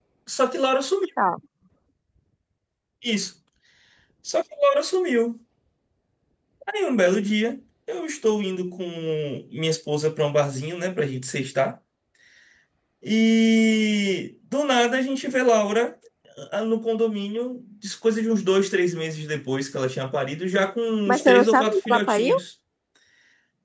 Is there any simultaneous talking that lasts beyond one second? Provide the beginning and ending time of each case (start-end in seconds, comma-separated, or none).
21.1-22.4